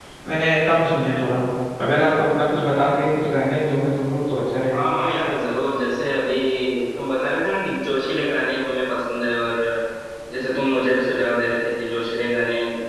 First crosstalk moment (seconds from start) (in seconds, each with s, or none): none